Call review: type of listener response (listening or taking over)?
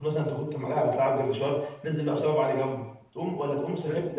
listening